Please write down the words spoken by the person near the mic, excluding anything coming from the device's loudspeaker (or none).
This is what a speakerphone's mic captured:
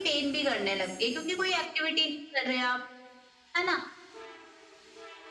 none